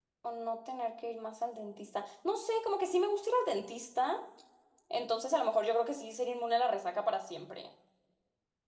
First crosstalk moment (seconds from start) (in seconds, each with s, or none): none